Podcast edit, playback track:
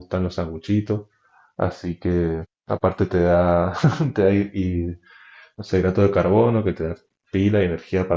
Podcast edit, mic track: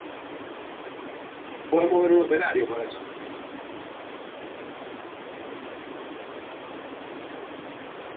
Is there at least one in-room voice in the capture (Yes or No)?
Yes